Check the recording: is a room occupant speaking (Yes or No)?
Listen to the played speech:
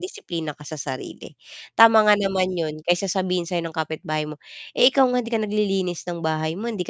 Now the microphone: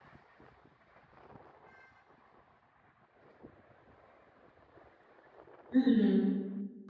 Yes